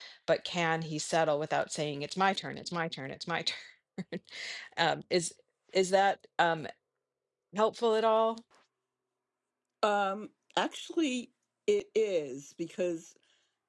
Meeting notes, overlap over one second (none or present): none